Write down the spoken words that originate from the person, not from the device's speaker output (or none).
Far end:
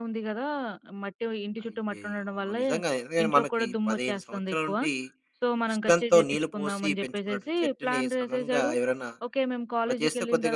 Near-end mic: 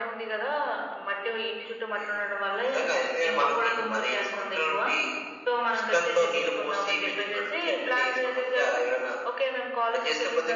none